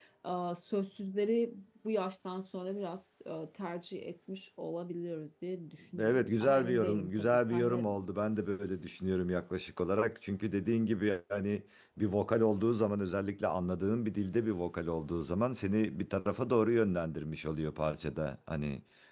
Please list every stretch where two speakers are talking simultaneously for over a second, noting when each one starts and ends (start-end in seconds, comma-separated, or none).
6.0-7.9